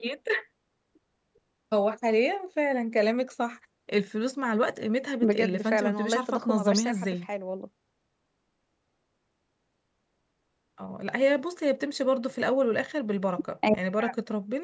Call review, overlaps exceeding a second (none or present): present